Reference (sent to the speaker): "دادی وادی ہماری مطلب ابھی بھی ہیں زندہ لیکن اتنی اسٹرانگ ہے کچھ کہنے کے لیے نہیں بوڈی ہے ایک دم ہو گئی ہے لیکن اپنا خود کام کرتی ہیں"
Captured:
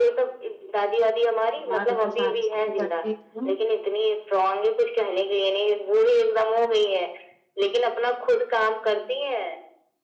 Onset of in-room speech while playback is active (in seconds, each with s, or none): 1.7 s